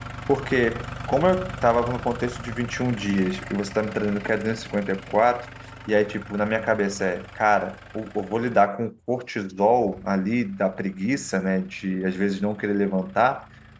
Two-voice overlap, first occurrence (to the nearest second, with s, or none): none